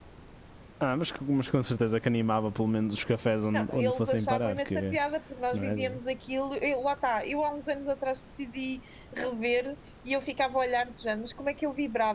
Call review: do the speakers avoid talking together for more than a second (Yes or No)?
No